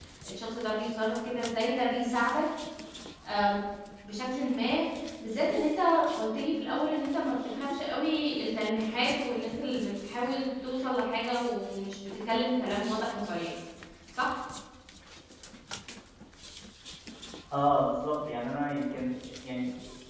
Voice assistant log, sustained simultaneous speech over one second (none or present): none